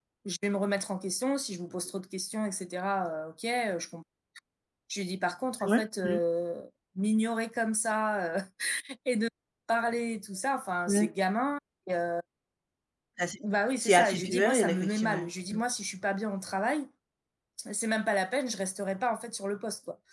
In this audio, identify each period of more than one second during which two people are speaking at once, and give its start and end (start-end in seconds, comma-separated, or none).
13.8-15.6